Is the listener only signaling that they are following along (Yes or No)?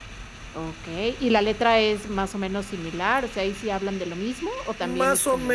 No